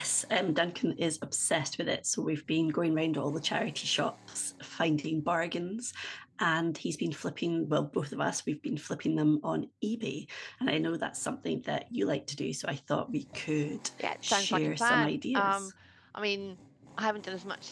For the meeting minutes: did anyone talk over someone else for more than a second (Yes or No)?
Yes